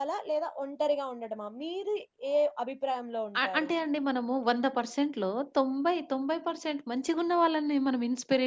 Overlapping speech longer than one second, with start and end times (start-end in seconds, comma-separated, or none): none